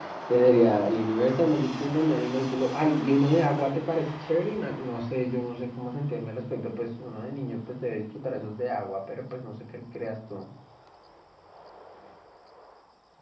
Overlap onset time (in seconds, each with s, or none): none